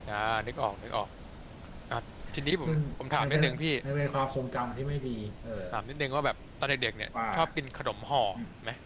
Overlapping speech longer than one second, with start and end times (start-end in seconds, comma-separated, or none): none